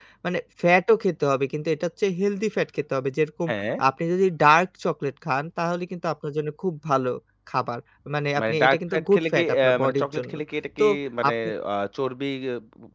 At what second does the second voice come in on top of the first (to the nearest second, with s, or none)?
9 s